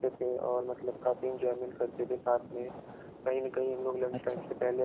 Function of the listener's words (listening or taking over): listening